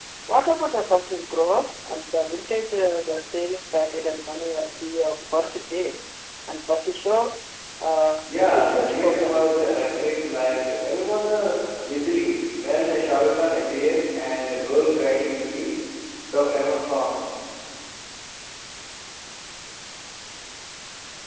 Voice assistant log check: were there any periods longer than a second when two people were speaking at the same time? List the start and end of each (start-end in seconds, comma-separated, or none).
8.2-9.6